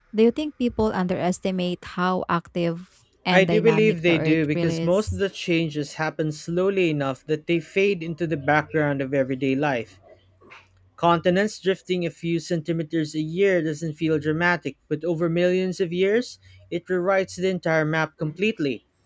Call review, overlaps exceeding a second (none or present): present